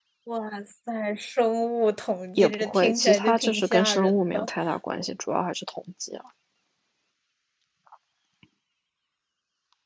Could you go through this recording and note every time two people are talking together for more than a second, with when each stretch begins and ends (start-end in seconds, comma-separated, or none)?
2.4-4.5